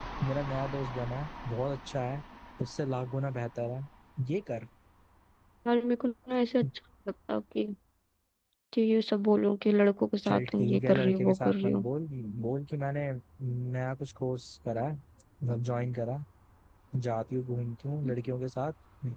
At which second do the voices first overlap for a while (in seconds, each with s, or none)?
10.2 s